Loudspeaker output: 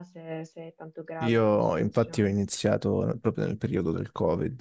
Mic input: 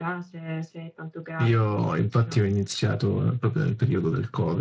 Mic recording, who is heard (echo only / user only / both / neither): echo only